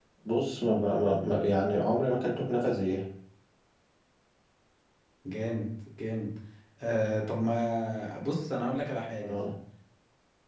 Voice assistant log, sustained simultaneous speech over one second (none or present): none